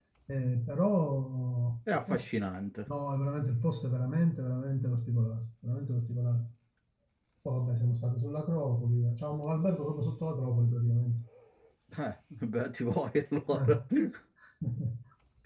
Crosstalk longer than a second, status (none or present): none